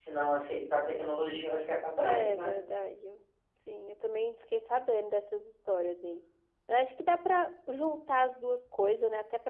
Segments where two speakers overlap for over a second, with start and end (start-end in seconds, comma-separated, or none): none